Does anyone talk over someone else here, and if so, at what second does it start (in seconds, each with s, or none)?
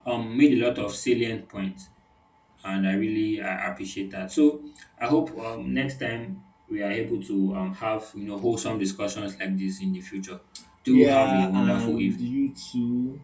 10.9 s